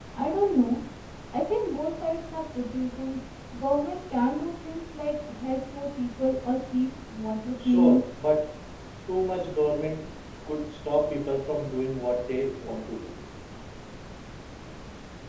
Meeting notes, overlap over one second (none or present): none